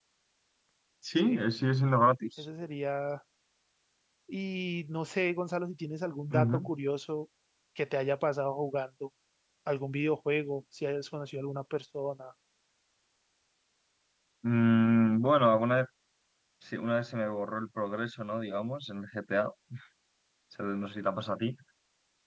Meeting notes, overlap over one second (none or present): none